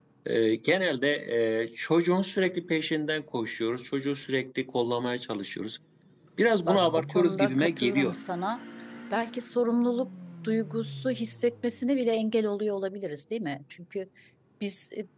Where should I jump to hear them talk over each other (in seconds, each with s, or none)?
6.6 s